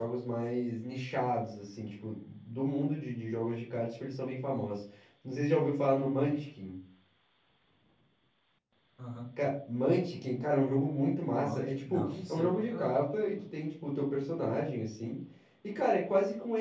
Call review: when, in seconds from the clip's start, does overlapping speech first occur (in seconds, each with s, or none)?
11.3 s